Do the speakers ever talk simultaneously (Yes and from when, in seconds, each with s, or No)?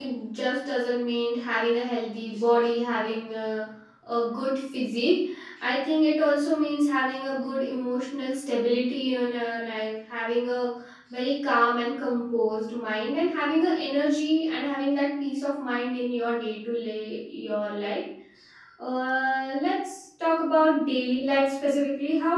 No